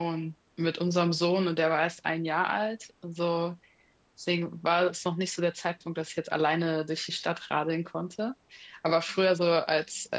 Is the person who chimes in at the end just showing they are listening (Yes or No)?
Yes